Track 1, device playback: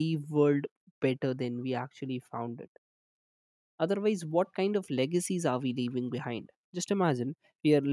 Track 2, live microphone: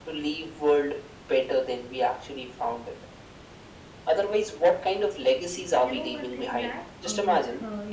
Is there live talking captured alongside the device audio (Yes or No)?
Yes